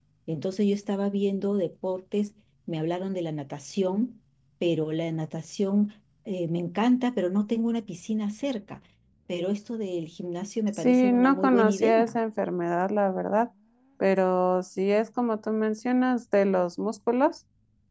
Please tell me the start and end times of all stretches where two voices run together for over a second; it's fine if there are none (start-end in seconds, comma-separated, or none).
10.7-12.2